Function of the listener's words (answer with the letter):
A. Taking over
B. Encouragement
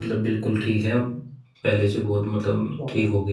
A